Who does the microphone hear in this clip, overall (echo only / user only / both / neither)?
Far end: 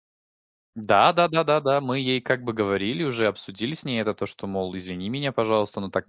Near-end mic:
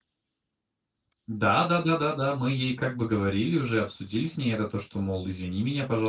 echo only